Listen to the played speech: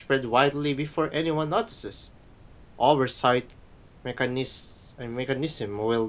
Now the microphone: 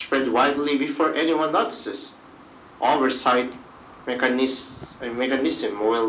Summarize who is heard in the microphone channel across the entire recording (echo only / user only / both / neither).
echo only